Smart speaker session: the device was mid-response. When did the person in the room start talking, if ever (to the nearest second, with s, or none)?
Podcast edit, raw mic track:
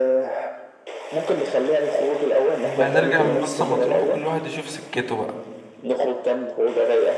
3 s